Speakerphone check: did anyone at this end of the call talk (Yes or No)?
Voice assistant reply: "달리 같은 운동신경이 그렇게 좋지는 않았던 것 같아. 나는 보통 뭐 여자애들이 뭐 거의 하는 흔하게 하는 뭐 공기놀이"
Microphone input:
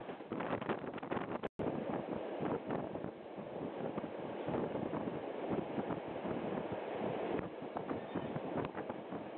No